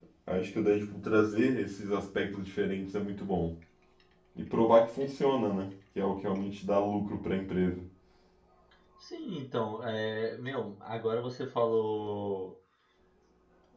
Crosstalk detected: No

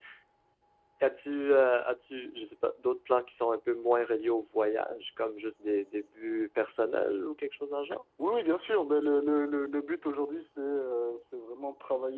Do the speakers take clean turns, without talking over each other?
Yes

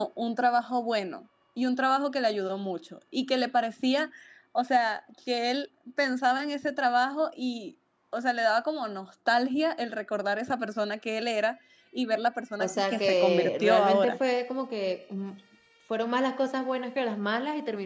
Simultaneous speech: Yes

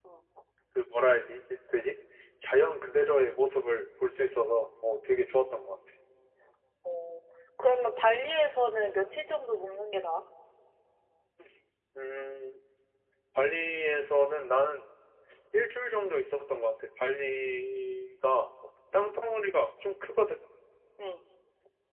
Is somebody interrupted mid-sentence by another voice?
No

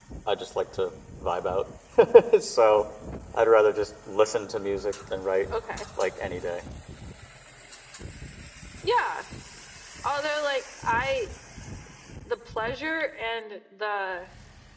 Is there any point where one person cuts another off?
No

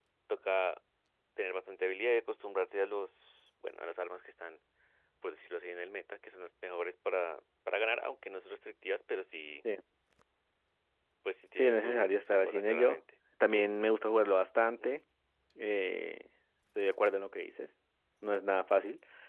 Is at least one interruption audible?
Yes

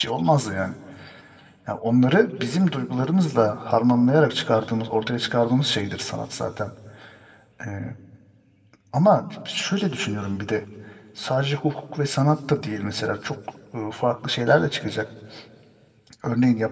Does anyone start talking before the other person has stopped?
No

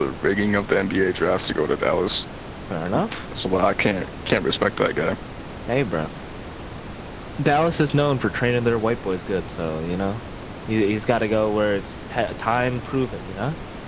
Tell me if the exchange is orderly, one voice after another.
Yes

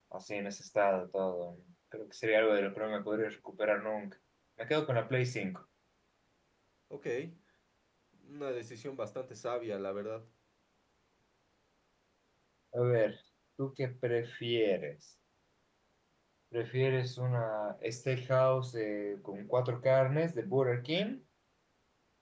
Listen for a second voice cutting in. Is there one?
No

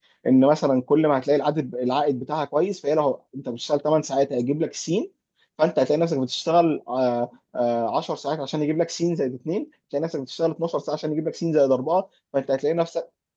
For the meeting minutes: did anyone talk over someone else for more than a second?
No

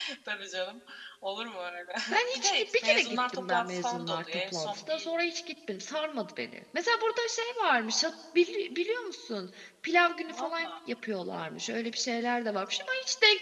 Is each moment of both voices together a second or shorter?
No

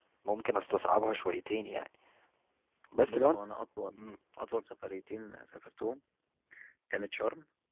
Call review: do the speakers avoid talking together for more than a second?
Yes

